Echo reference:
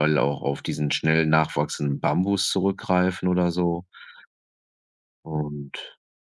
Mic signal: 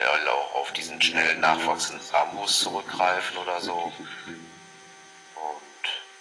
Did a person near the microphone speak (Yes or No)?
Yes